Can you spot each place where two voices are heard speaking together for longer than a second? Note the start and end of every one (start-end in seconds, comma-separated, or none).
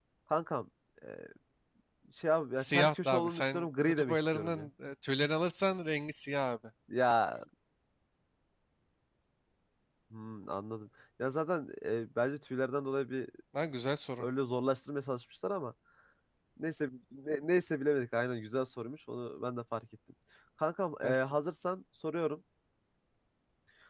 2.6-4.7